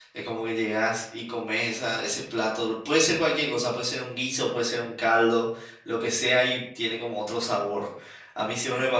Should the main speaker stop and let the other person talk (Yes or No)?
Yes